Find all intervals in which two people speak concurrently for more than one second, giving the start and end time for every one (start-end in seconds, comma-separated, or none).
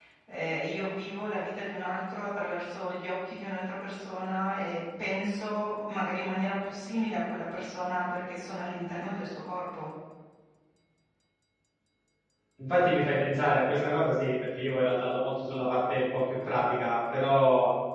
none